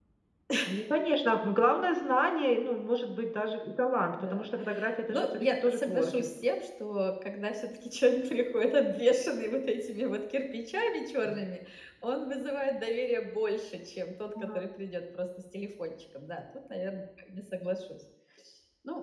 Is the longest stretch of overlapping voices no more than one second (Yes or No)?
No